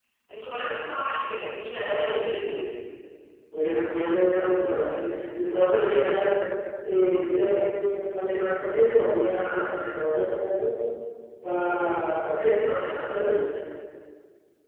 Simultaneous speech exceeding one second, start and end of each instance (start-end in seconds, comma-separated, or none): none